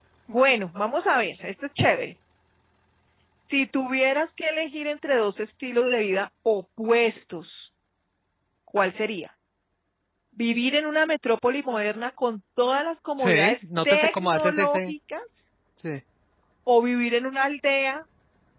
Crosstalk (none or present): present